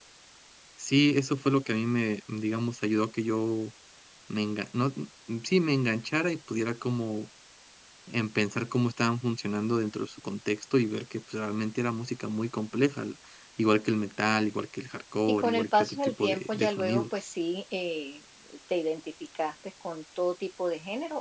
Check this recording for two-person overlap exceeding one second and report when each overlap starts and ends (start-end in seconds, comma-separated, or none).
15.3-17.0